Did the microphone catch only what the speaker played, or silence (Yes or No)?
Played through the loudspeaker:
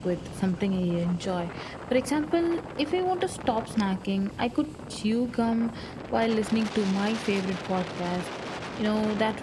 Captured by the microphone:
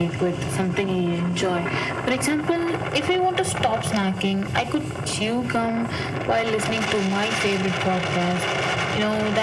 Yes